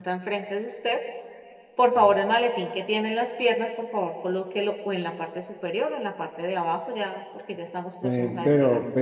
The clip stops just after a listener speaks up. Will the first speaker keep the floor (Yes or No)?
No